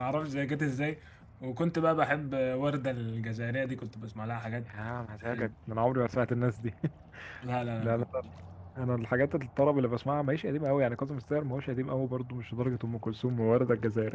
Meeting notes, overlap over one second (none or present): none